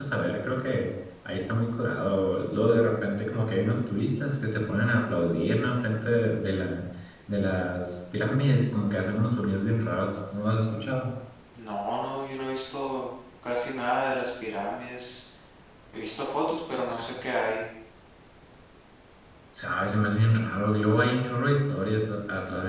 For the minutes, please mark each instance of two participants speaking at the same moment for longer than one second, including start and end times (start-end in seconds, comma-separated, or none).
none